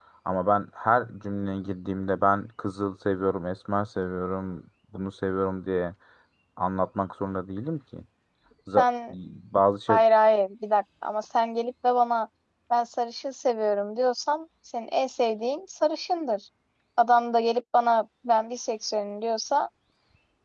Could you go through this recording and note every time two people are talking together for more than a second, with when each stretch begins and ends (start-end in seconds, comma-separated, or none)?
none